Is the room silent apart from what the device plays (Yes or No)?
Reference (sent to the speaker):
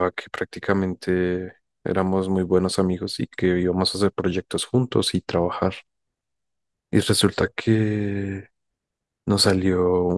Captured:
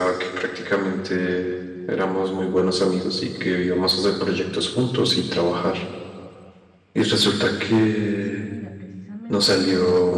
No